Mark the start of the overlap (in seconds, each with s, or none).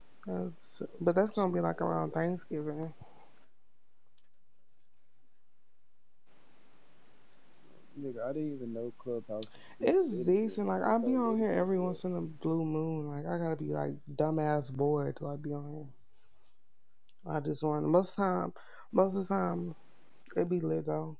1.0 s